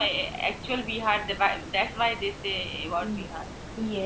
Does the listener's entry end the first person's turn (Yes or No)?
Yes